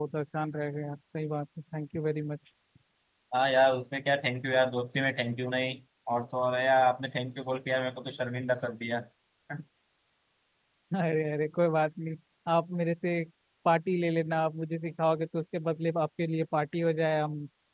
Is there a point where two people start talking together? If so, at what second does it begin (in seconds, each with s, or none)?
none